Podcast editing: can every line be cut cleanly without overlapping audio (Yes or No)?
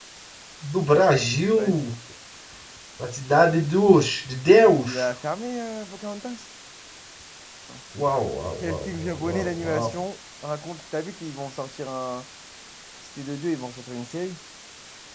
No